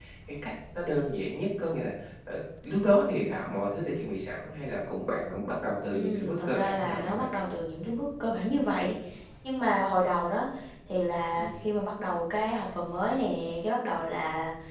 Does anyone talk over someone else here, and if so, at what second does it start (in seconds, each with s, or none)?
5.9 s